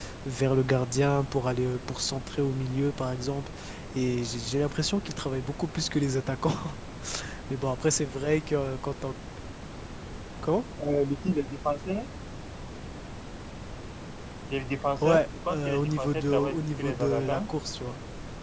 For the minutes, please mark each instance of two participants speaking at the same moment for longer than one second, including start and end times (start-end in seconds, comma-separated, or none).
15.0-17.4